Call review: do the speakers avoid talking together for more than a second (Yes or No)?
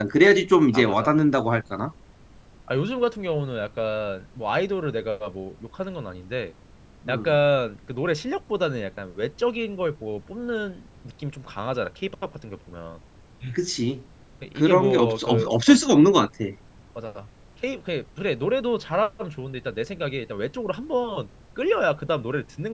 No